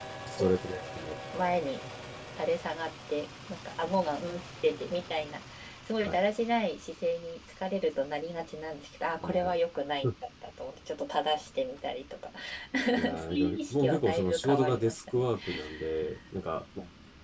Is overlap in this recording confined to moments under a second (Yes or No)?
No